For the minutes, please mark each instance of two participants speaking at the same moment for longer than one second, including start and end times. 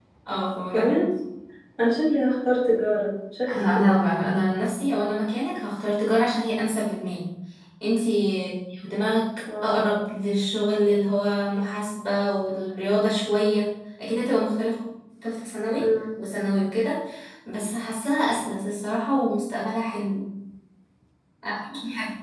none

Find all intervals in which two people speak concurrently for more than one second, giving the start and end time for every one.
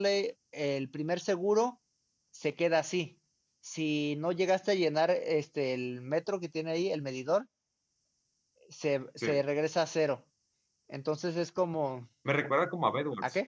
none

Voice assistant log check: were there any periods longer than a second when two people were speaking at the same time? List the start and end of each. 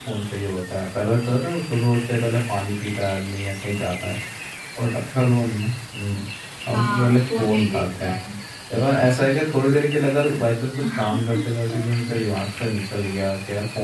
6.7-8.1

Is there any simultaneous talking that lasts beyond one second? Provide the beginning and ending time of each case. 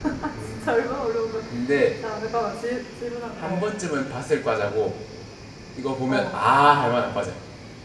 none

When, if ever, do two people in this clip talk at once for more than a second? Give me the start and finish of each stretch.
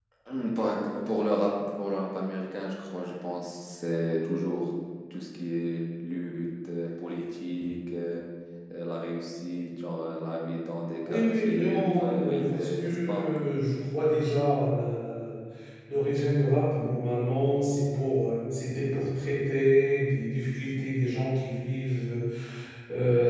11.1-13.2

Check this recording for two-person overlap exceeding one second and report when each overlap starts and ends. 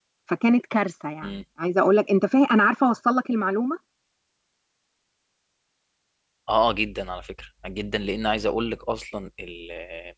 none

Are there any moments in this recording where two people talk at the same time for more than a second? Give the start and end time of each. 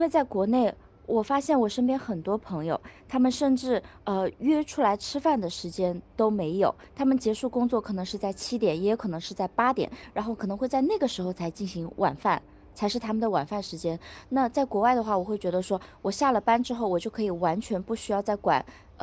none

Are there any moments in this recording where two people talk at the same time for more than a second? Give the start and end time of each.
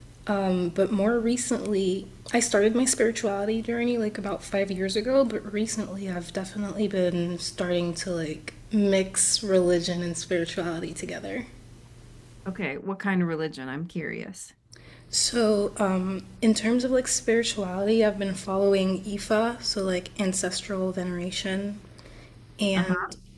none

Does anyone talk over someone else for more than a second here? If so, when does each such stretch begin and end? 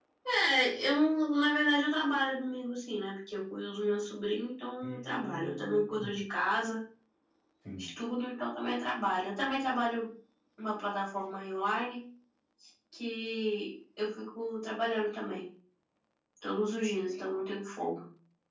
4.8-6.1

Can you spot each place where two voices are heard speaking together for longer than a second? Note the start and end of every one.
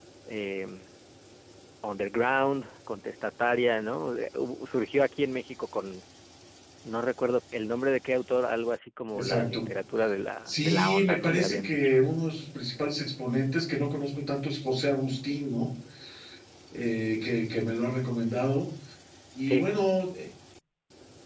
10.5-11.9

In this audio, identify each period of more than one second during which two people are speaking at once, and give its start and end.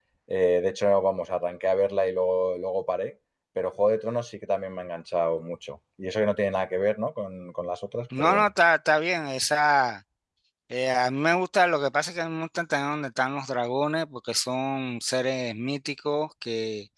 none

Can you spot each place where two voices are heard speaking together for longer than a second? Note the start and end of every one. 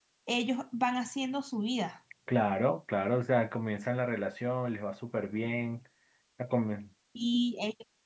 none

